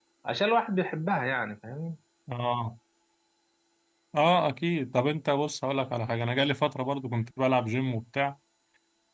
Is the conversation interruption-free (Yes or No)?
Yes